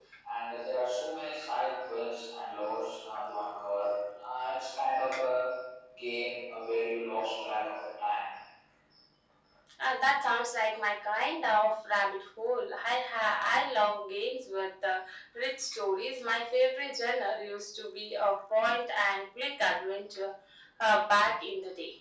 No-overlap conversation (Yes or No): Yes